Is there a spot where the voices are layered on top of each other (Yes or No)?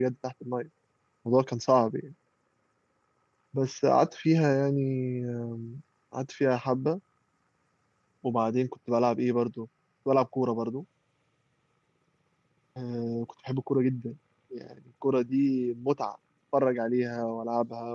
No